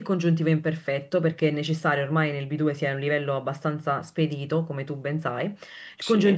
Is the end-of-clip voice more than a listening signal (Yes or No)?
No